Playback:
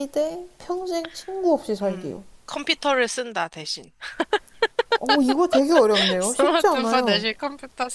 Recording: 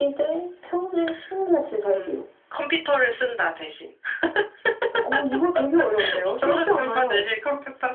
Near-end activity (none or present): none